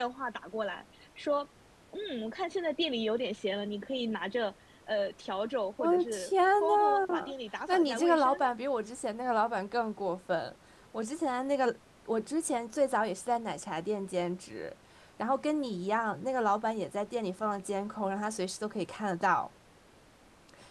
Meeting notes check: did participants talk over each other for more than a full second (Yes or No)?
Yes